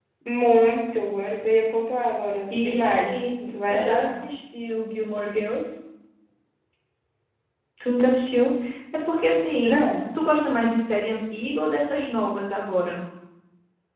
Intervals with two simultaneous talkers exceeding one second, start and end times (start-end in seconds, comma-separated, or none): 2.5-4.2